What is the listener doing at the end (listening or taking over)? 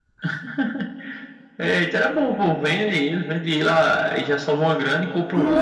taking over